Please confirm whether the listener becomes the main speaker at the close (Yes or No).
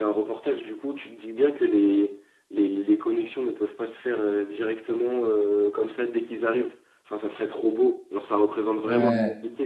No